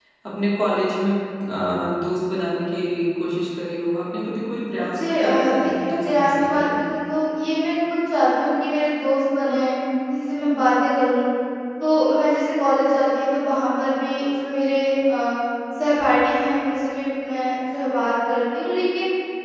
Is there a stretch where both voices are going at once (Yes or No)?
Yes